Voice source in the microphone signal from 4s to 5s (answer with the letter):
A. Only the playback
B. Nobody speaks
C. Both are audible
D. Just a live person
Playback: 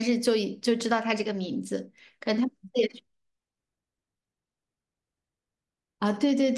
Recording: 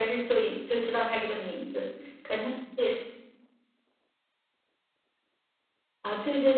B